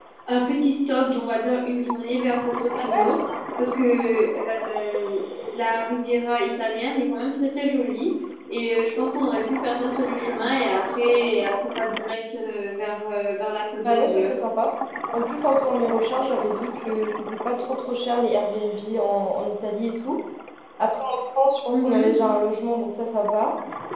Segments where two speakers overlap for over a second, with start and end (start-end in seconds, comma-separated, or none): none